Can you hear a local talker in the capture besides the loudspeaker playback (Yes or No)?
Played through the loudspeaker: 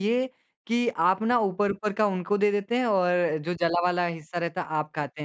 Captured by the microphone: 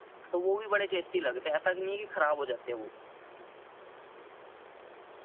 Yes